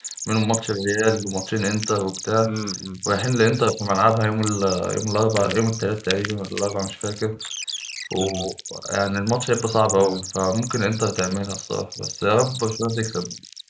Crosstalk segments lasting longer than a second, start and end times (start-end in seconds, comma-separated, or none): none